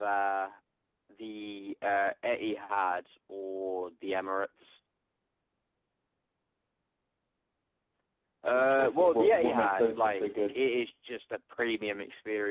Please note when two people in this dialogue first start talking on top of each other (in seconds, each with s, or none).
8.5 s